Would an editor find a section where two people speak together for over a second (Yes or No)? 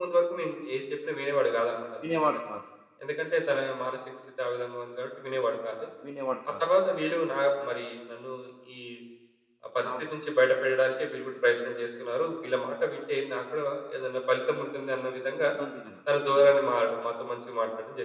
No